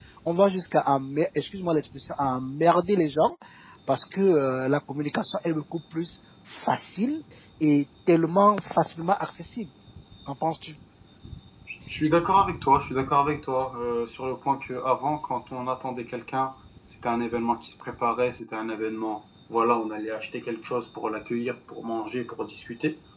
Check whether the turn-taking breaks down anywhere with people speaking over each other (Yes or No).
No